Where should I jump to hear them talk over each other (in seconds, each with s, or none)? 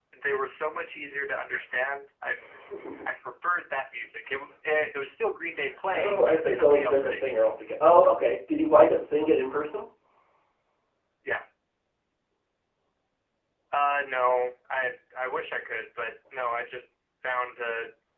5.9 s